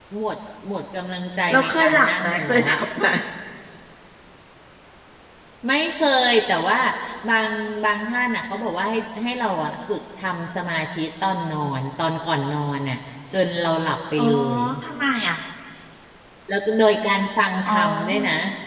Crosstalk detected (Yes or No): Yes